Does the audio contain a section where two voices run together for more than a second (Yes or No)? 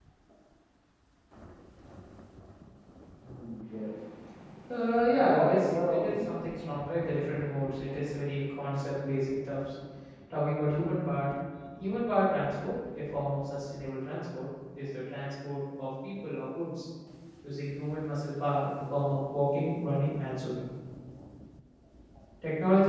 Yes